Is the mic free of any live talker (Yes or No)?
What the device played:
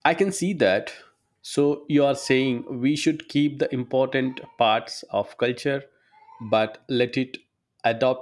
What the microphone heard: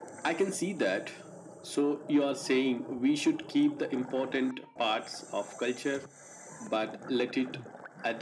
Yes